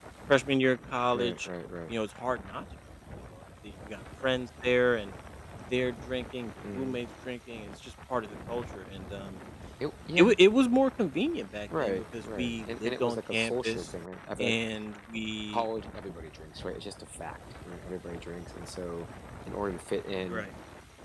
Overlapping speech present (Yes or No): Yes